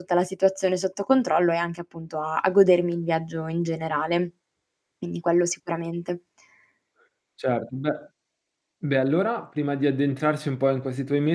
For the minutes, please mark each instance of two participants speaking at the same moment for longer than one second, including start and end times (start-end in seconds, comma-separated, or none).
none